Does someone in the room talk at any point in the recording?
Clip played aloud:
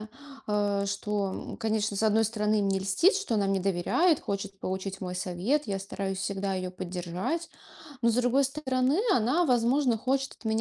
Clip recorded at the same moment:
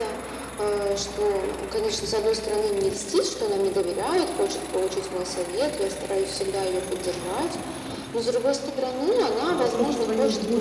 Yes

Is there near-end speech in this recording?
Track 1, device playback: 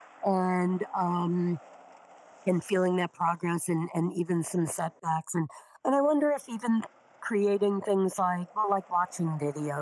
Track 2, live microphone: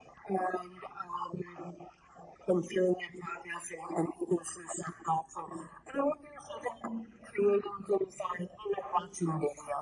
No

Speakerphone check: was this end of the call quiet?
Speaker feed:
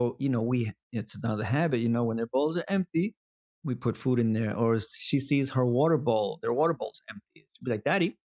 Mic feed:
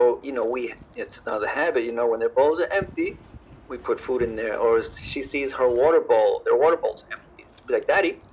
Yes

